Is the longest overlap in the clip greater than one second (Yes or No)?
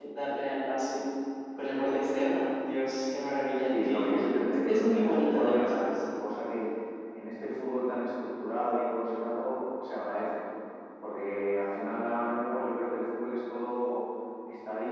Yes